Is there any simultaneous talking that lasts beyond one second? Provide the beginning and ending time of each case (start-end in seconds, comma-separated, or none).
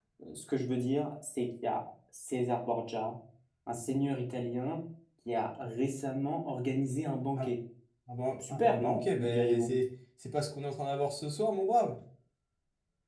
8.5-9.7